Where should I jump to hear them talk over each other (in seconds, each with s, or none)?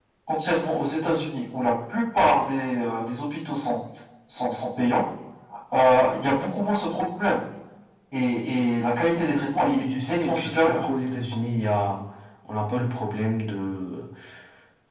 9.5 s